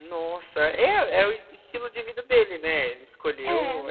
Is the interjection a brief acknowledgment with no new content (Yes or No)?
Yes